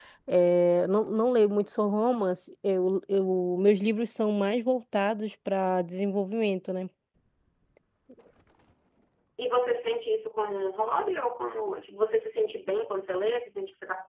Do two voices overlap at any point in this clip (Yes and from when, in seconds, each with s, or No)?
No